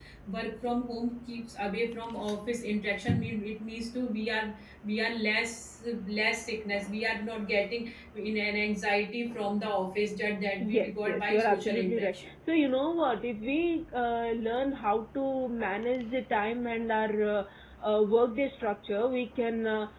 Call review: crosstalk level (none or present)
present